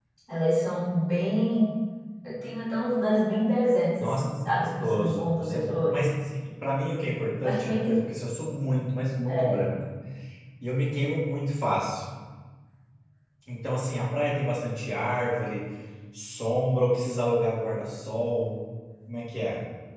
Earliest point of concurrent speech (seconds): 4.0 s

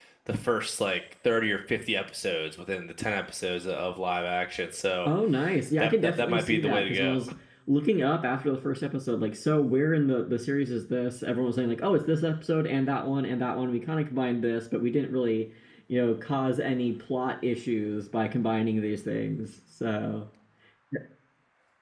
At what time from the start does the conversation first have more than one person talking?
5.8 s

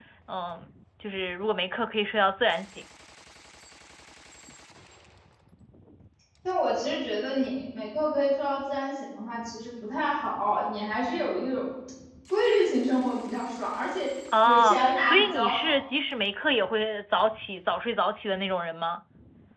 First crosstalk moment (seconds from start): 14.3 s

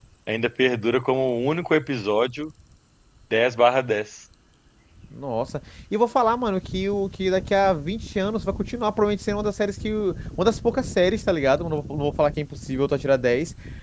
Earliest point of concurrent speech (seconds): none

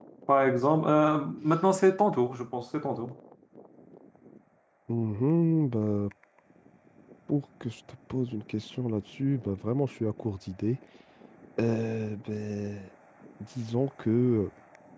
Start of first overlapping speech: none

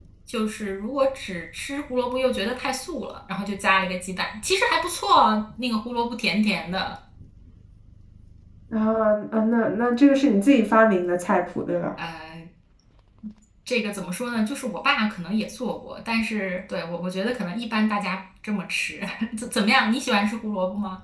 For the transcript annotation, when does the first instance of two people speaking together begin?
none

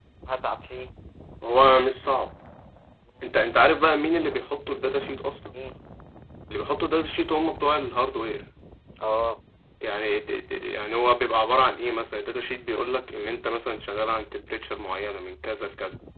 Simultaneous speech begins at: none

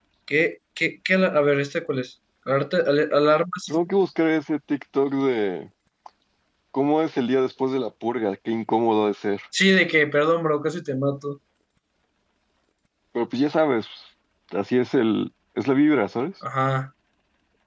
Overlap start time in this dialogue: none

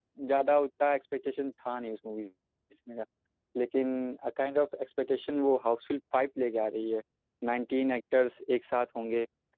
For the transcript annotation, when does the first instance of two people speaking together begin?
none

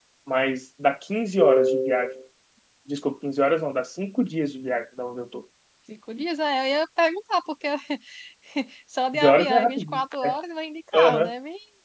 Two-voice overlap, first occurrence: 9.1 s

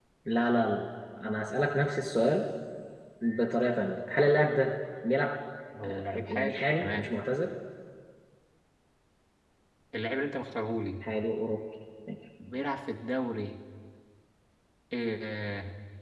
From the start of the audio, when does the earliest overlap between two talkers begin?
5.8 s

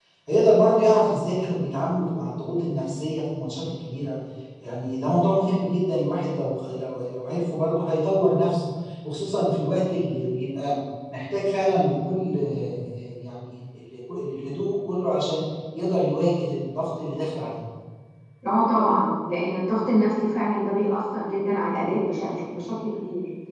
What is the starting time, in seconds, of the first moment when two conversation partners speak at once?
none

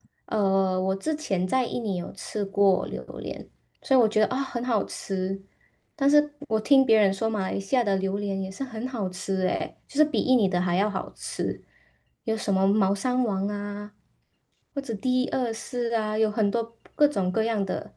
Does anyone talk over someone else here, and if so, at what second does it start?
none

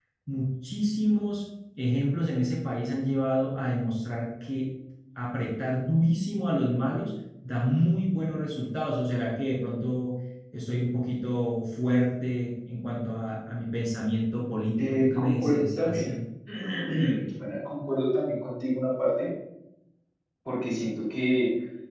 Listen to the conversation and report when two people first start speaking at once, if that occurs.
14.8 s

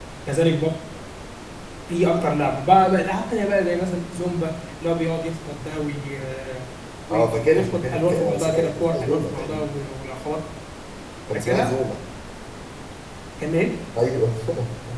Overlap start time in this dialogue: 7.1 s

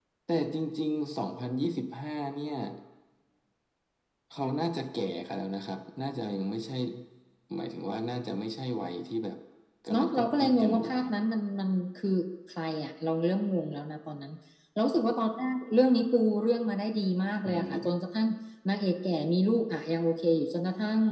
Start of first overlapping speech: 9.9 s

